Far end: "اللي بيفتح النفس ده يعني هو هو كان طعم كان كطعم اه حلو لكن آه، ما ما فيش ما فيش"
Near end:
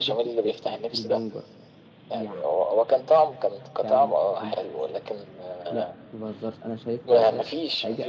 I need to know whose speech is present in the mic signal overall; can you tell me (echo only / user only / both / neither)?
both